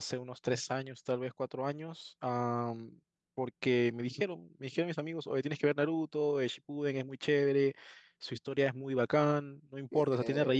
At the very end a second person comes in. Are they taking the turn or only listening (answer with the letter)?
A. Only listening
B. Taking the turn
A